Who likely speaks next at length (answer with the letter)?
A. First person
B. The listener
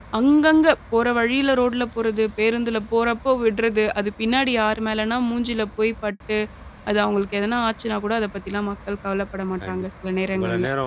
B